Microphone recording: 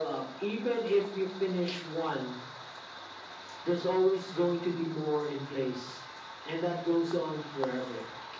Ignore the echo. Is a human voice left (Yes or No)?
No